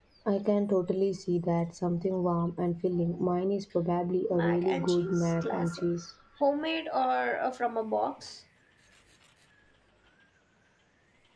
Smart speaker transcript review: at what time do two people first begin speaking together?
4.3 s

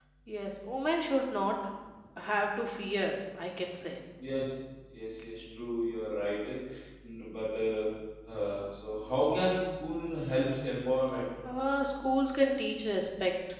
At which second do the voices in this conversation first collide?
none

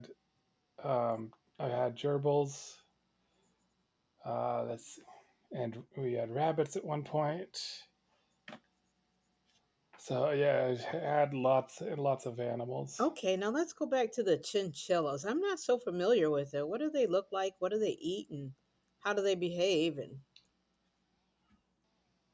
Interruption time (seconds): none

